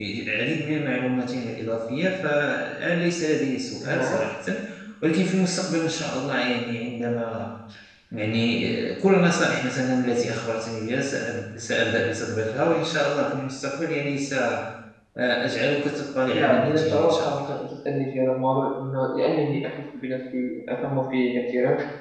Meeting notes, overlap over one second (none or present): present